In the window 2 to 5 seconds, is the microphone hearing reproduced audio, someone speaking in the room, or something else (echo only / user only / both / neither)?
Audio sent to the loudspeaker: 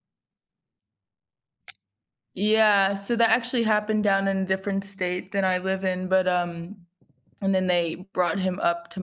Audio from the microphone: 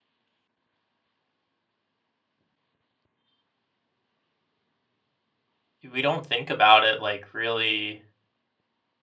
neither